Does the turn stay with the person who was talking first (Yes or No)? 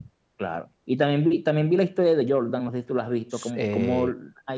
Yes